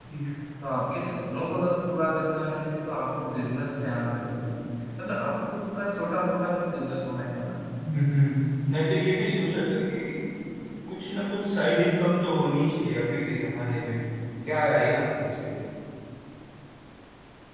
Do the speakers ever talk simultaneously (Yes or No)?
No